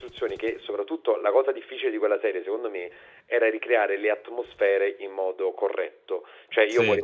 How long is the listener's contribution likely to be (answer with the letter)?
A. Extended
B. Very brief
B